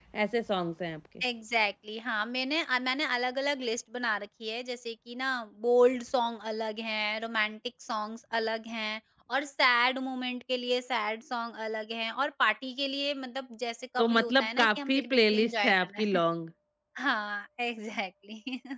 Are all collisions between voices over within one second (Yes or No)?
No